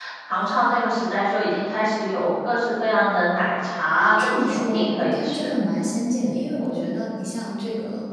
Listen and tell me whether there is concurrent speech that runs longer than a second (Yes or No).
Yes